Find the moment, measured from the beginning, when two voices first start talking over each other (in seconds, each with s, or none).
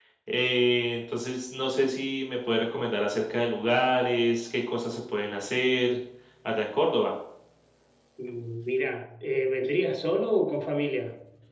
none